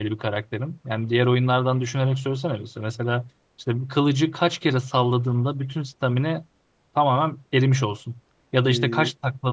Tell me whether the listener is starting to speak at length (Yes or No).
No